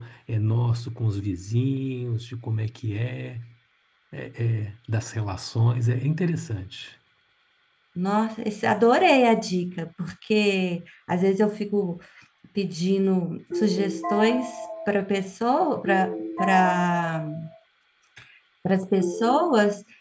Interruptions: none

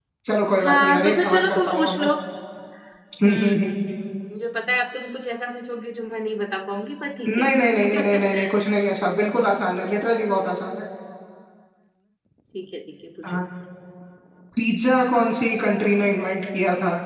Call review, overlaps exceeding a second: present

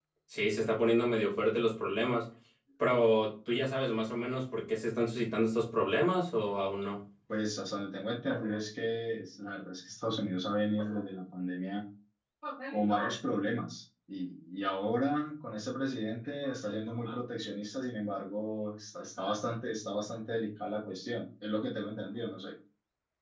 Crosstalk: none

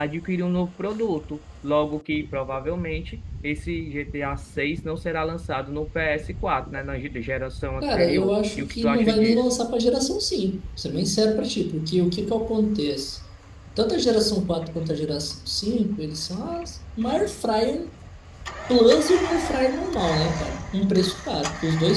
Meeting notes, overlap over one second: present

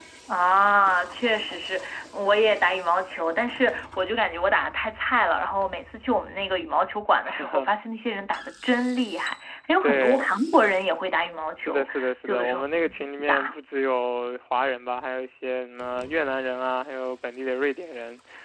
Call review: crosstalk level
present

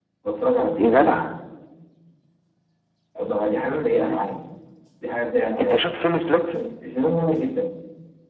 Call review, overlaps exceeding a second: none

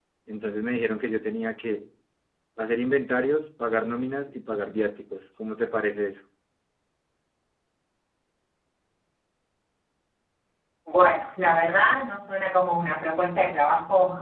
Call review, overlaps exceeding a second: none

